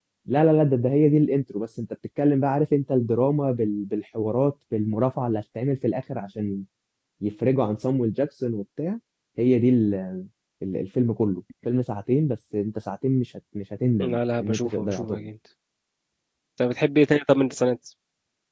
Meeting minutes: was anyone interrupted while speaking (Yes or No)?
Yes